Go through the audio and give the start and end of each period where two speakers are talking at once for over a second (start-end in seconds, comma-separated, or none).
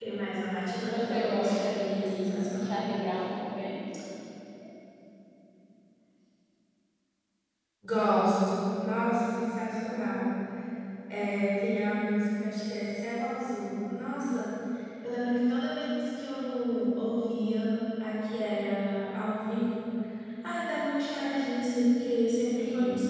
0.8-2.7